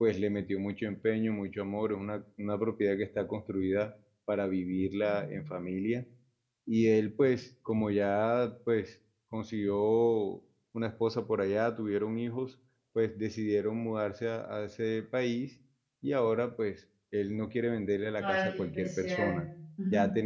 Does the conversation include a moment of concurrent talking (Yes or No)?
Yes